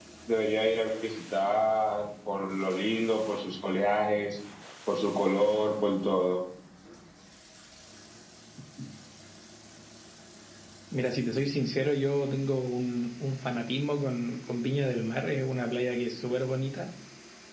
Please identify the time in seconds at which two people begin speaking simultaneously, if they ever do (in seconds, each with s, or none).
none